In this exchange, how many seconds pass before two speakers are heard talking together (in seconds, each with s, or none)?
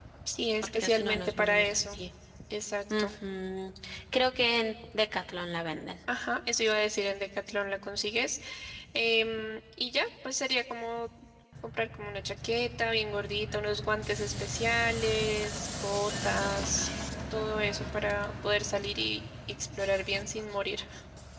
0.6 s